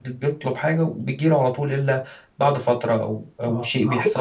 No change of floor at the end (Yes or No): No